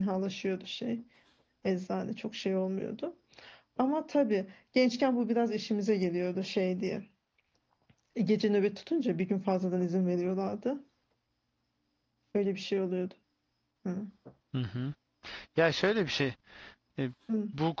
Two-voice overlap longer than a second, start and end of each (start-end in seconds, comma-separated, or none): none